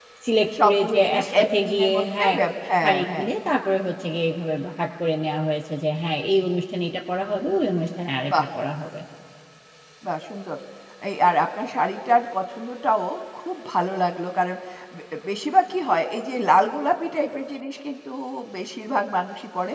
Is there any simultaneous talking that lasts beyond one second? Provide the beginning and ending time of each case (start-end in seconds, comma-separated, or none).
0.6-2.4